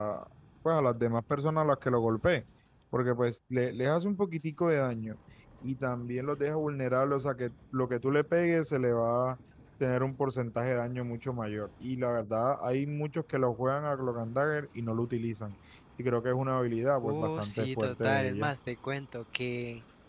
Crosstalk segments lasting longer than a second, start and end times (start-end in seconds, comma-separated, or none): 17.0-18.5